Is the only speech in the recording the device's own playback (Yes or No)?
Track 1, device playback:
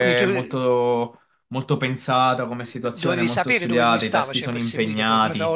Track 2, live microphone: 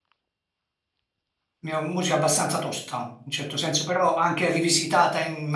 No